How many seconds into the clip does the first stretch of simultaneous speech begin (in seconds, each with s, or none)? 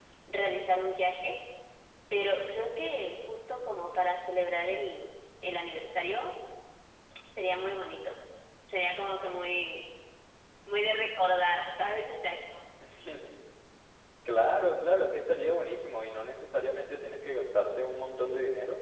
none